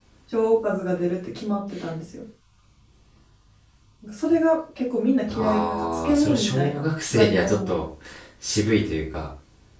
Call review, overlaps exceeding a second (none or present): present